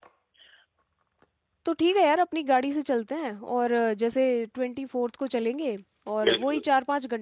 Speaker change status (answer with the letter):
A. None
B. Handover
A